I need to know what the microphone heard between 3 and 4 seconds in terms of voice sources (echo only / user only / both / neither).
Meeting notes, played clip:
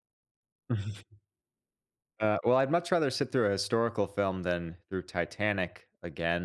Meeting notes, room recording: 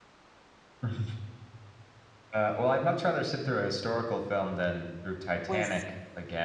echo only